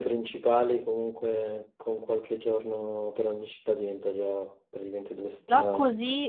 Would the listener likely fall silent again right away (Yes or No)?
No